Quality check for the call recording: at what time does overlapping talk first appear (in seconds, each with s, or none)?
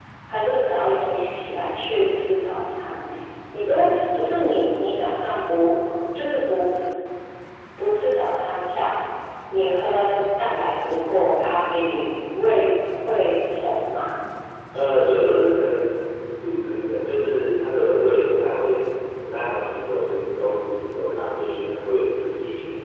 none